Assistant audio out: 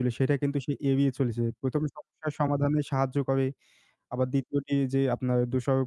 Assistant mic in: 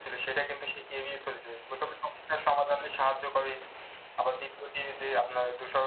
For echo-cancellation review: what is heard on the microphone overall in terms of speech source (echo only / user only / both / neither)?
echo only